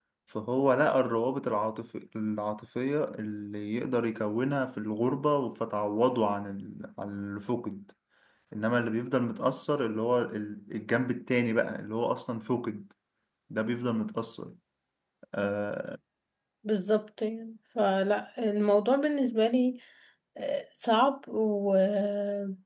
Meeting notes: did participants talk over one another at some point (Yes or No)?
No